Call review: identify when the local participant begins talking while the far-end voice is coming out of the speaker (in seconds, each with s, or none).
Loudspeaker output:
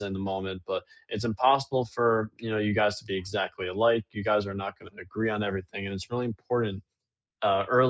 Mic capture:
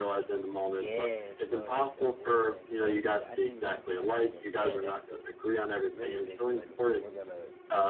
0.6 s